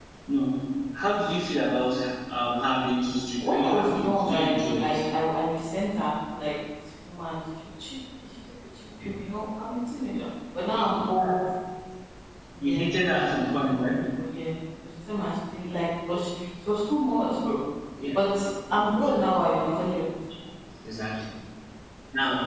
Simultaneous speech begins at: 3.5 s

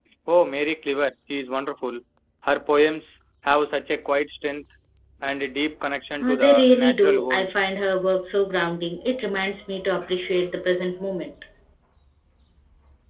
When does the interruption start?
6.2 s

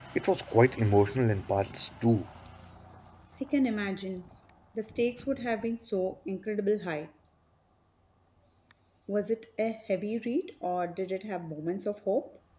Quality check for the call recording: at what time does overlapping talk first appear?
none

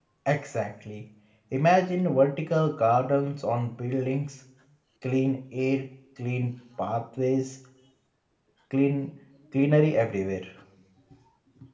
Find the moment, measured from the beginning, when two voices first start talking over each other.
none

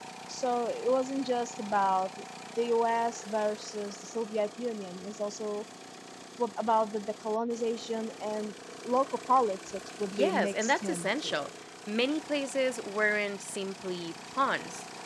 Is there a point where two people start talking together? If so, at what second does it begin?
10.1 s

